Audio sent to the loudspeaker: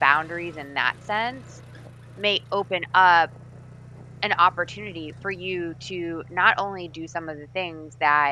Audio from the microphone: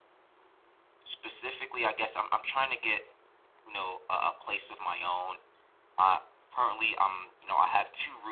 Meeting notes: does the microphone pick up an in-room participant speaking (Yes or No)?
Yes